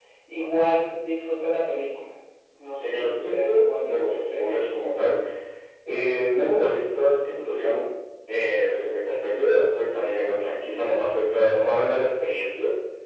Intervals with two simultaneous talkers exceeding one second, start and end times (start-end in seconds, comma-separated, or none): 2.8-4.4